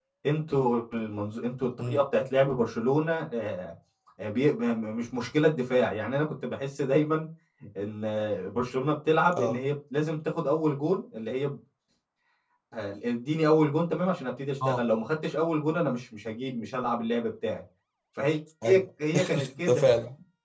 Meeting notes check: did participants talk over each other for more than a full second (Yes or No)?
No